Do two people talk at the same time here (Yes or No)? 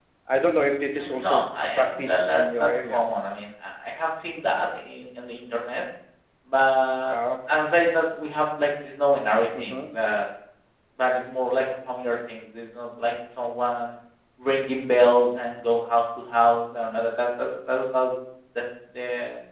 Yes